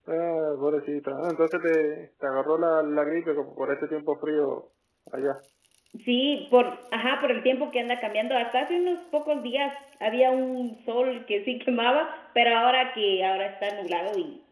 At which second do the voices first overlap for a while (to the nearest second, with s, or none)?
none